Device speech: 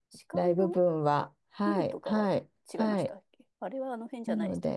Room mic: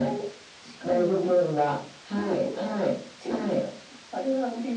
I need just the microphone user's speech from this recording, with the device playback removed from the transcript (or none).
うん。